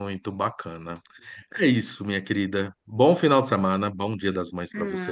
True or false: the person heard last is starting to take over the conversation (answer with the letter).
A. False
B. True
B